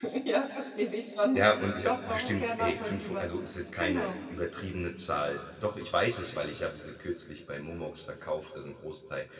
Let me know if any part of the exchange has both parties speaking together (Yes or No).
Yes